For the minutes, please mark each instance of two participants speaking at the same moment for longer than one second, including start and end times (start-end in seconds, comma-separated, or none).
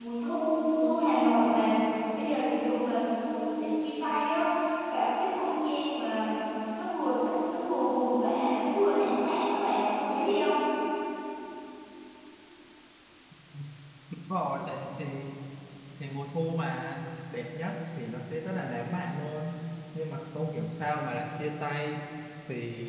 none